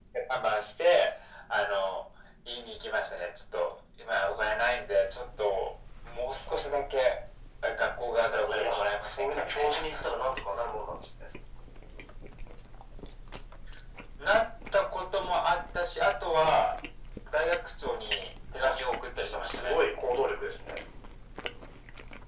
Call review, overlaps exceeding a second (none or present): present